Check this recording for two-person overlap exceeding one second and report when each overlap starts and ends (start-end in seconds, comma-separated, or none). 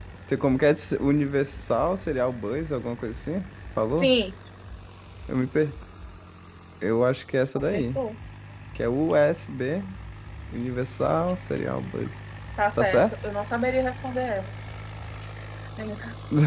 none